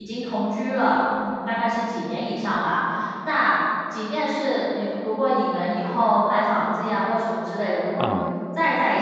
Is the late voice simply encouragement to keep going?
Yes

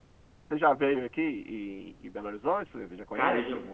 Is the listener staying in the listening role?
No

